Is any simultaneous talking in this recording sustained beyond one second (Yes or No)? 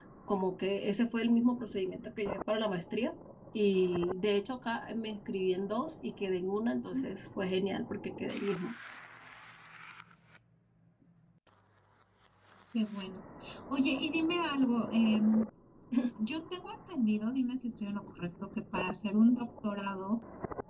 No